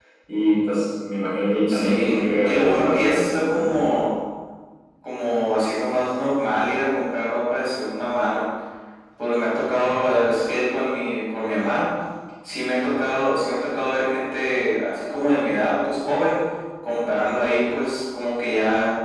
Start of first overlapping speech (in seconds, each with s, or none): 1.7 s